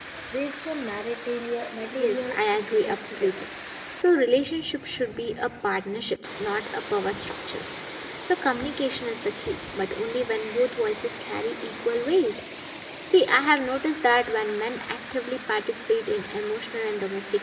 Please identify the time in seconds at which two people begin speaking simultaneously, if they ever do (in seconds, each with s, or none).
1.9 s